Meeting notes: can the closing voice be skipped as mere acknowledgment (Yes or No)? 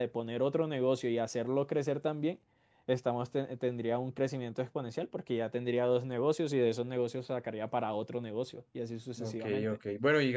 No